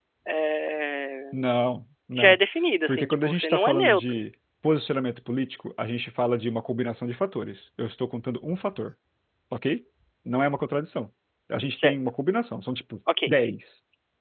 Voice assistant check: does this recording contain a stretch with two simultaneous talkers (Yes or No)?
Yes